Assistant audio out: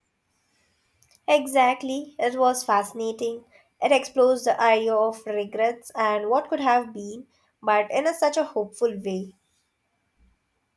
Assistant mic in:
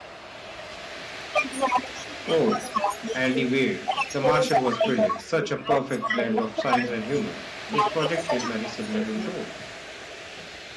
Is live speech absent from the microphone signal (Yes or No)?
No